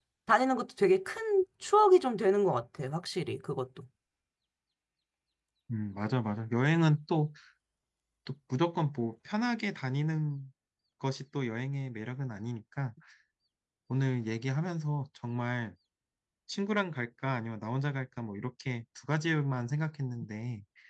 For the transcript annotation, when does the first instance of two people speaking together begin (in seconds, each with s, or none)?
none